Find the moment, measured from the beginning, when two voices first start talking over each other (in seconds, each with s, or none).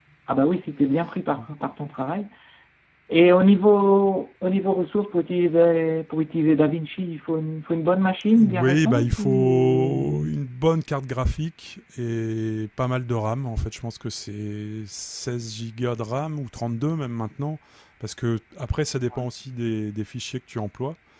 8.3 s